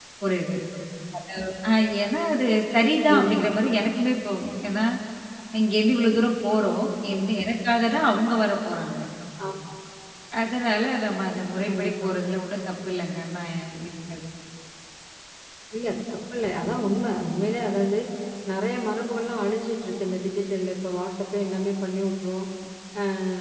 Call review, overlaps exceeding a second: none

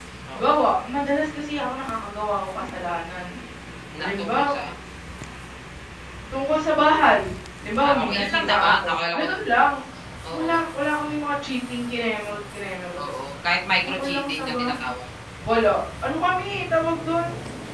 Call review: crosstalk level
present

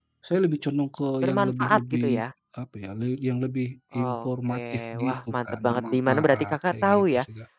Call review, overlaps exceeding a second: present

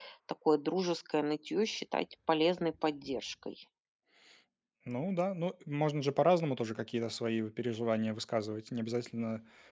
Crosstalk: none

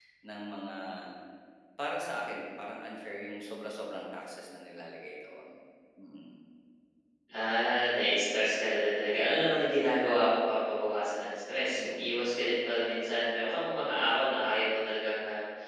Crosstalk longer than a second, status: none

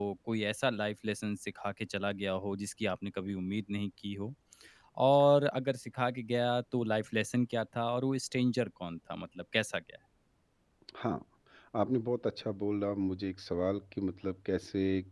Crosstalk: none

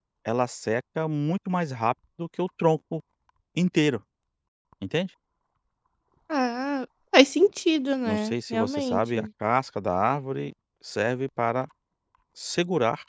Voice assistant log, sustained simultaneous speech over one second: present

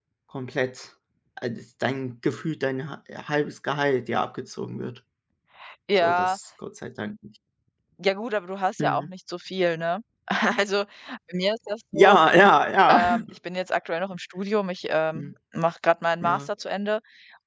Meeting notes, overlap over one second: none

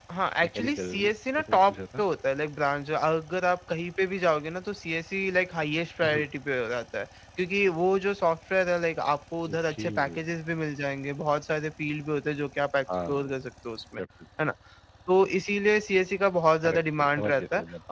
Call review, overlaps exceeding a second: present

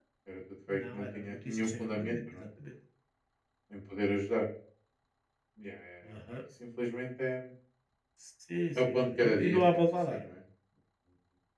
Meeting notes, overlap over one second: present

